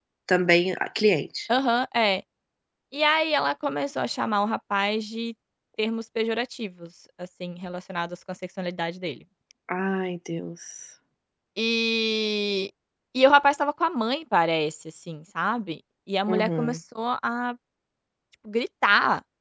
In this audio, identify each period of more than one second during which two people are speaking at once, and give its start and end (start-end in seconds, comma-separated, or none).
none